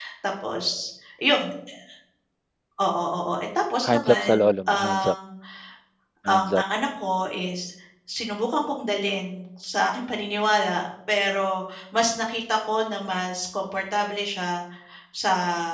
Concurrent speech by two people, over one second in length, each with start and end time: 3.9-5.2

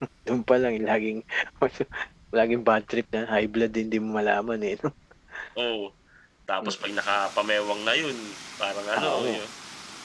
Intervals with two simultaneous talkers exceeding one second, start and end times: none

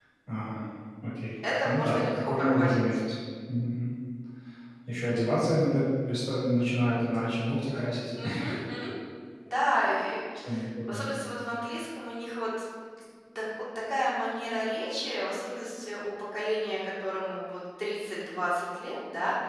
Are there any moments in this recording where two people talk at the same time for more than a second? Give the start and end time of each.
1.6-2.8

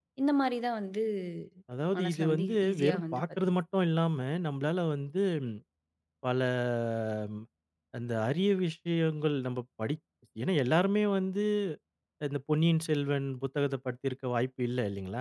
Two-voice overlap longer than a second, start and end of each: 2.0-3.5

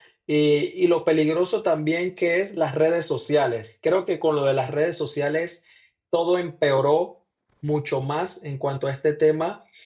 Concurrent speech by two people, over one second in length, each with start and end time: none

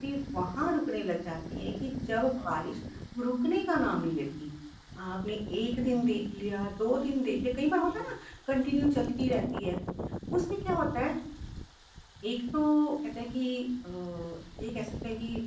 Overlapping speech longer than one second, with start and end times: none

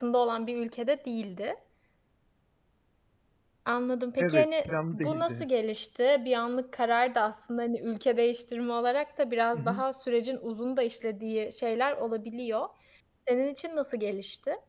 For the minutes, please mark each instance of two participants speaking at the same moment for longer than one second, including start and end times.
4.2-5.4

